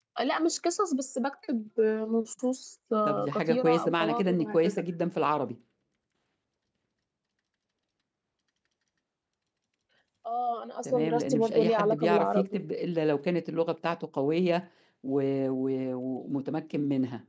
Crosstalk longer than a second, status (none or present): present